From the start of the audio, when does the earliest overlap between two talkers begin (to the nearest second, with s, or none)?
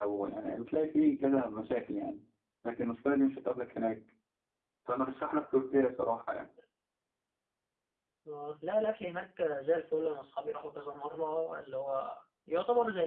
none